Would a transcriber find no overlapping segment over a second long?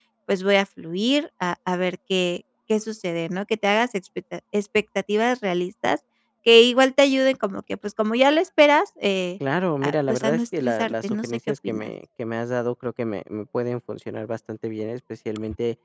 No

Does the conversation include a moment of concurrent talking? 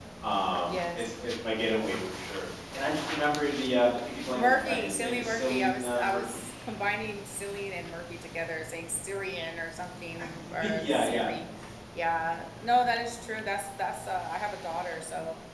Yes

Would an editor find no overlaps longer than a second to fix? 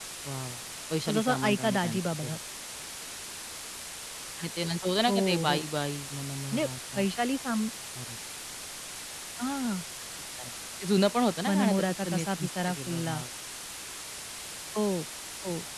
No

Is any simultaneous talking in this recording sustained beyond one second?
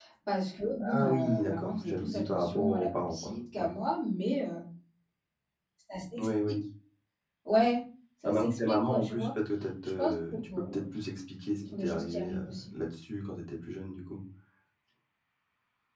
Yes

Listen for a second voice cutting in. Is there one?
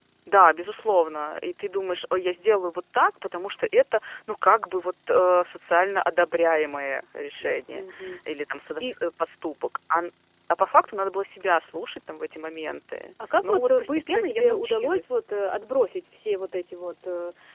Yes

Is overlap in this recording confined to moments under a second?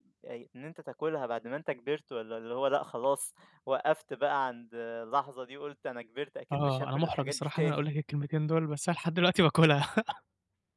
No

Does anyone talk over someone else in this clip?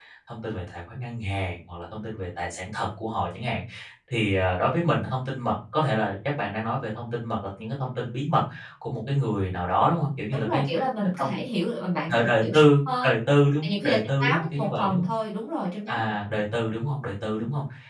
Yes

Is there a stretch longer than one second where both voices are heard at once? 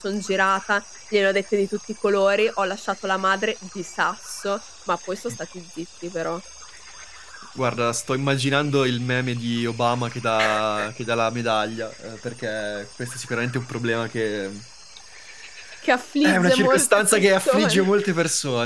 Yes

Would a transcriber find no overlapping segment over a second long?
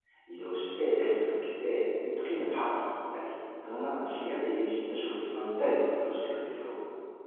No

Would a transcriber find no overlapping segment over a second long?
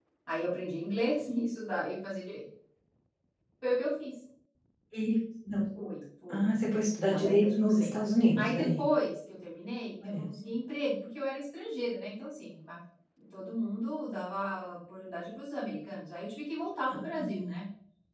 No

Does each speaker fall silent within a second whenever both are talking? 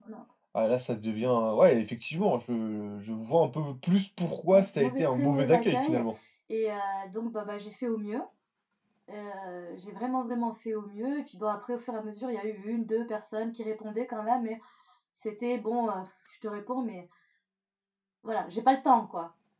No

